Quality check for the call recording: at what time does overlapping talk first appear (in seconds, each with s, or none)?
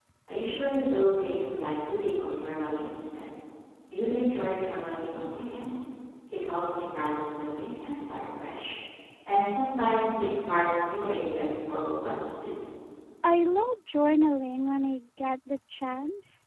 none